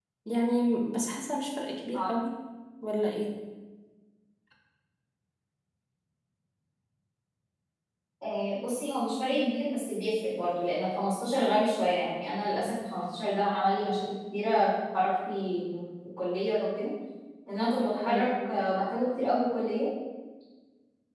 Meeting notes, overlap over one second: none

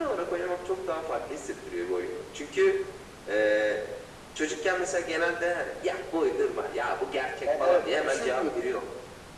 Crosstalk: present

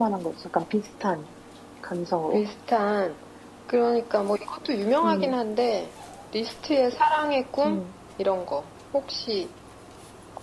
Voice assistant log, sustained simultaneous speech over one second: none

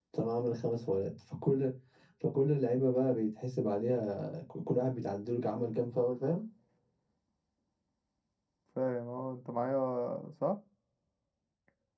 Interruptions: none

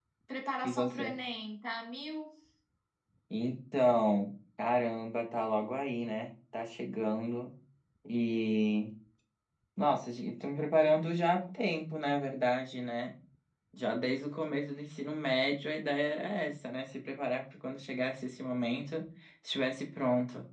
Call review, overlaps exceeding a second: none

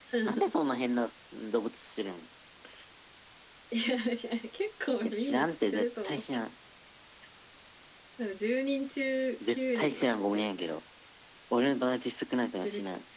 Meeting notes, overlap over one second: present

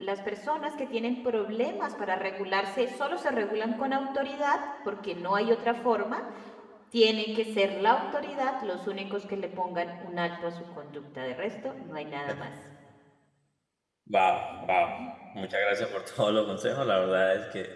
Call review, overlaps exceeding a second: none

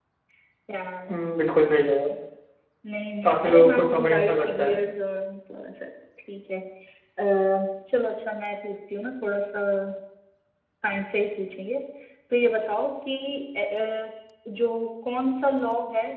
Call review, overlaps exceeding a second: present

